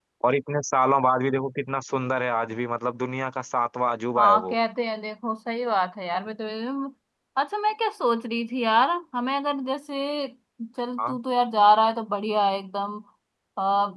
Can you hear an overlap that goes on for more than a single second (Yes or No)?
No